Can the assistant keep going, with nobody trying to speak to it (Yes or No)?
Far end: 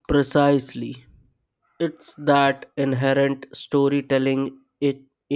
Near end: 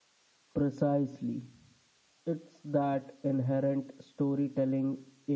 Yes